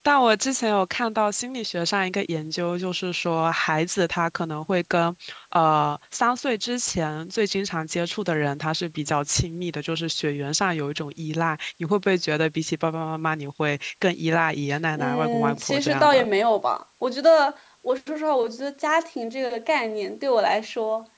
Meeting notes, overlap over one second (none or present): present